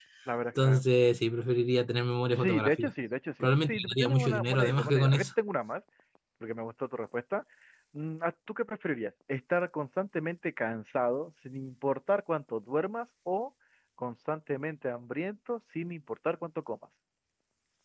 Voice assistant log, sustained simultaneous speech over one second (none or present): present